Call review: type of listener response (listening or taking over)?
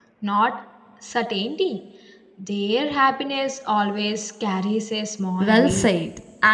taking over